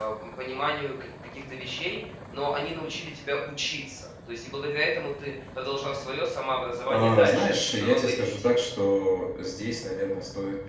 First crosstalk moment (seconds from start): 6.9 s

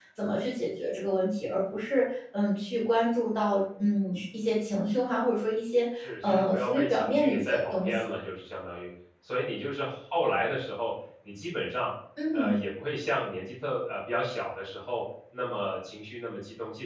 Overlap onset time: 6.0 s

